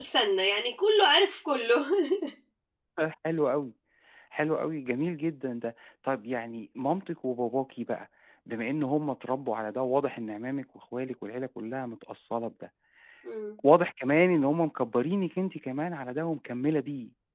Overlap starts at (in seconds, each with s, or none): none